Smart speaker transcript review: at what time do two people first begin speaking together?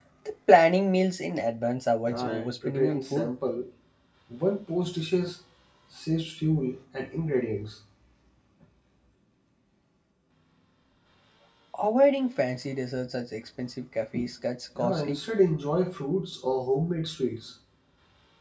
2 s

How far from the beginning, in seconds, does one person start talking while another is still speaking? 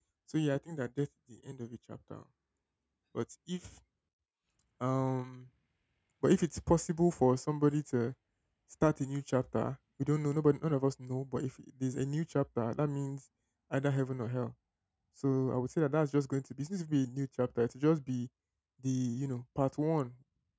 none

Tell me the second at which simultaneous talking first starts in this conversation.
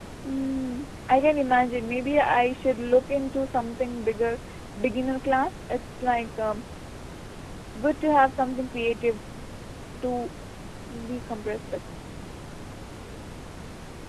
none

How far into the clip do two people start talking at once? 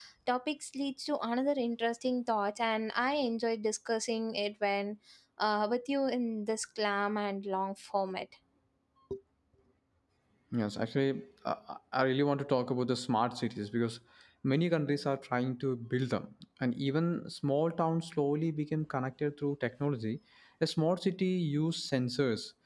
none

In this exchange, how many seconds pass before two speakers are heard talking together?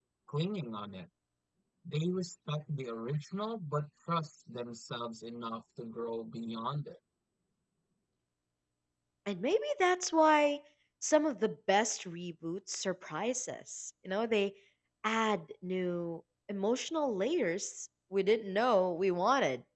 none

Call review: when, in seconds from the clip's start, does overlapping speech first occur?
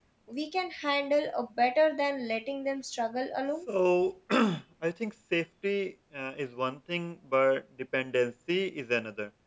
none

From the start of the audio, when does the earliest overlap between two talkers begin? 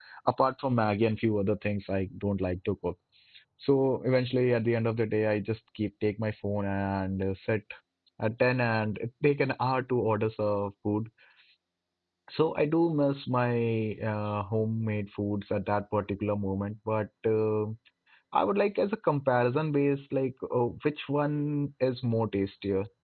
none

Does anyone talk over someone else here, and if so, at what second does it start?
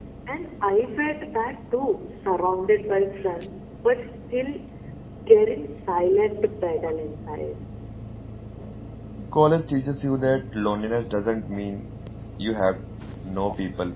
none

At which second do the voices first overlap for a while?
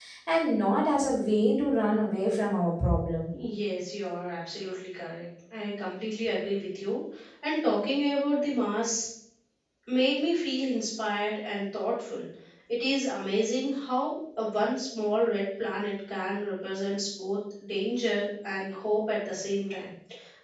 none

